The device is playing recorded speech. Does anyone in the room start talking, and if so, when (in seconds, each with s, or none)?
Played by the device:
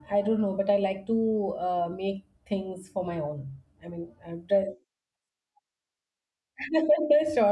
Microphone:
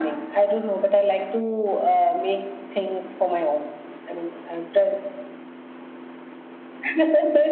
none